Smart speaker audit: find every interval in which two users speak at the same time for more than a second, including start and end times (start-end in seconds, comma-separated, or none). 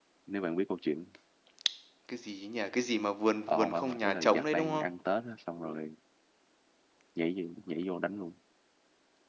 3.5-4.9